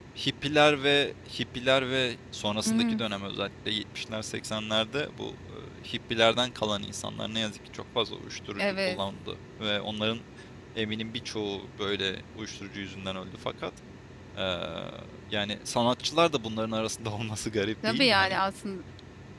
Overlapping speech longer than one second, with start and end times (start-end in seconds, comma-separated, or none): none